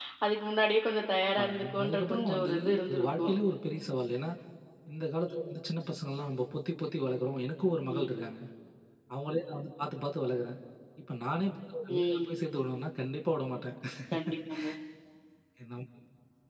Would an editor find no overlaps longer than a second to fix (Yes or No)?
No